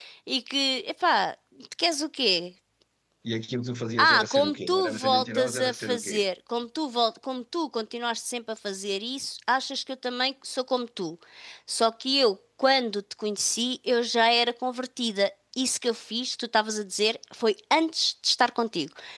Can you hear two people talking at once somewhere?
Yes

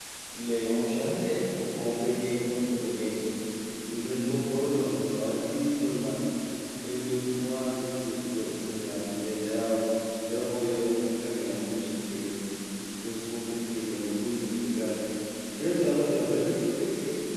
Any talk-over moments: No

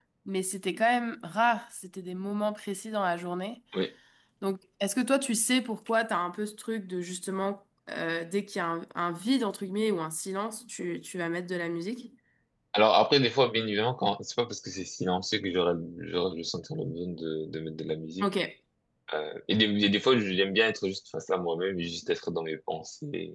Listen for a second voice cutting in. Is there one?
No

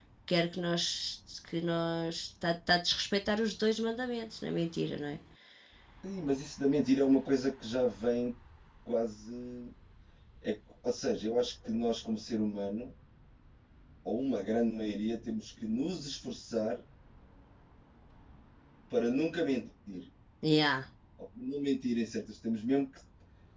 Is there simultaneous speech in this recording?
No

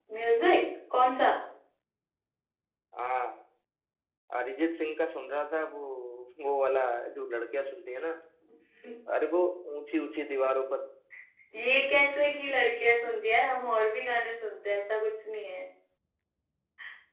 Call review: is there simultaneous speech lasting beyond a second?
No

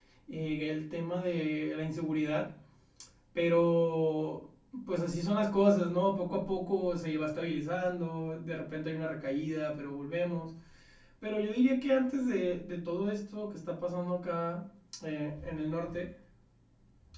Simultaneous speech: No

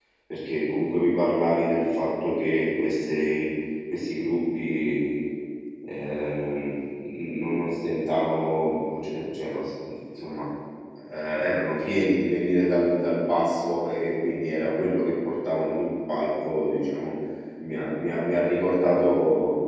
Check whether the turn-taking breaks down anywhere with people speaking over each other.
No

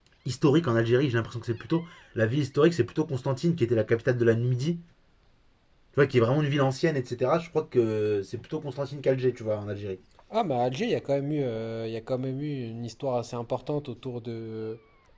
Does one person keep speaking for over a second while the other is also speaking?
No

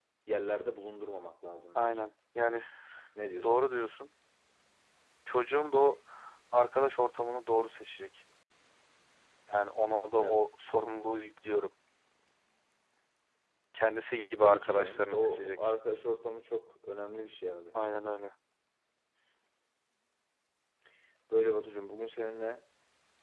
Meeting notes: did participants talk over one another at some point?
Yes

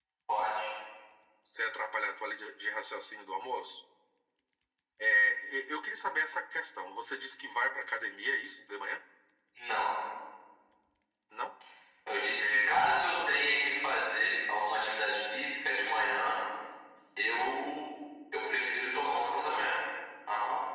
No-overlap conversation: No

